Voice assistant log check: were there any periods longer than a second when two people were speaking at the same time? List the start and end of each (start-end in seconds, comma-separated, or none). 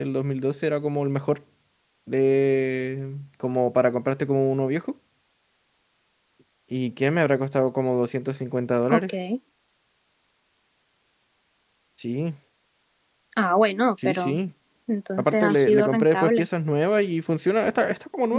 15.2-16.5